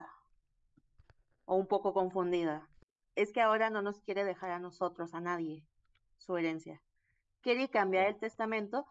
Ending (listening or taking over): listening